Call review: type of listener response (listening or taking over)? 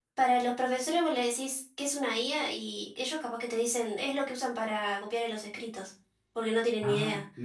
taking over